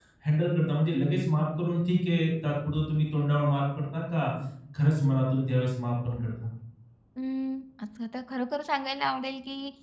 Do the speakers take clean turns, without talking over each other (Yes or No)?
Yes